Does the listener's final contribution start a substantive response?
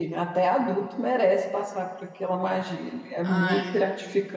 No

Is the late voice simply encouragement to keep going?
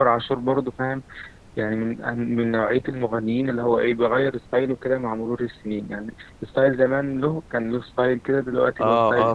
No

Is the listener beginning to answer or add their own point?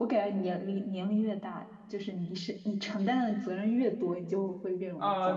Yes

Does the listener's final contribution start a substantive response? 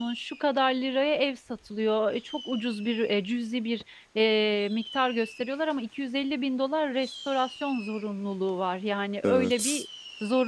No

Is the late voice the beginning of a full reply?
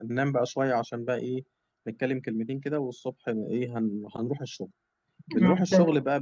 No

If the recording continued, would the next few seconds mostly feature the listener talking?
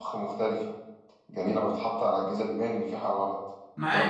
Yes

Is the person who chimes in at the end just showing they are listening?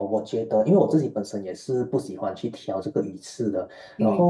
Yes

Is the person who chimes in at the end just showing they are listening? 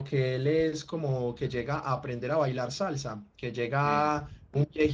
Yes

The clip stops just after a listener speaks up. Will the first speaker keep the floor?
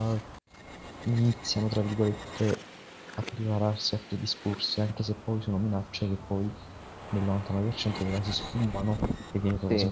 Yes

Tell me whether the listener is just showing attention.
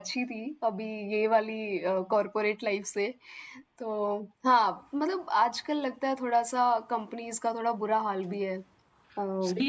No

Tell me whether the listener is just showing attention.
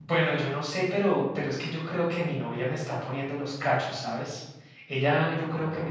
Yes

